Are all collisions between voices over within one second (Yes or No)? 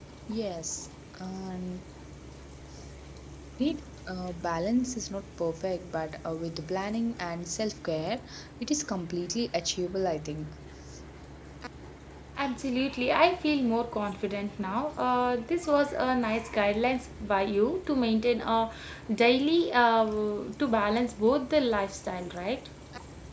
Yes